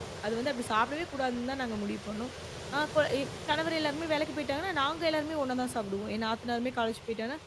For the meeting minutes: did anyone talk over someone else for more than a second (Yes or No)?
No